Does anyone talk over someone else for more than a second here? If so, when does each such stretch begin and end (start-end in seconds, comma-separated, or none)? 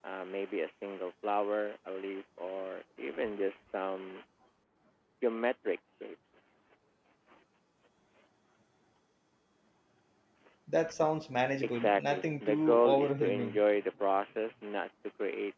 11.6-13.6